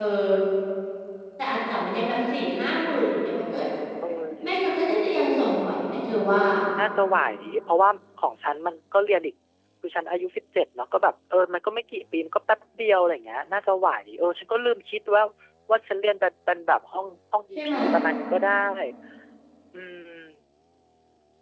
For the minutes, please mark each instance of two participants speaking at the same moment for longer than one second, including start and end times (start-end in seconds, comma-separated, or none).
none